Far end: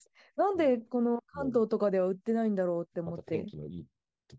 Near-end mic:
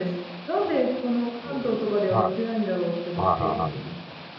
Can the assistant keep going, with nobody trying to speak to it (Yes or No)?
No